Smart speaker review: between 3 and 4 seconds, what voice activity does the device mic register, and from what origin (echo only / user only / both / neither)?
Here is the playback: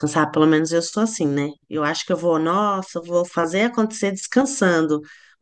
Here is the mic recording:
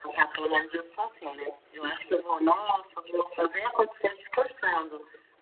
echo only